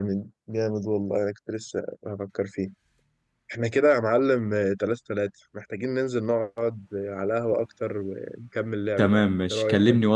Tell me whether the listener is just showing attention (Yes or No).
No